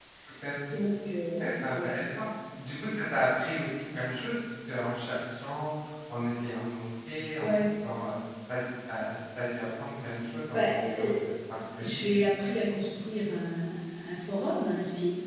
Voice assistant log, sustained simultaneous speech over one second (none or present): none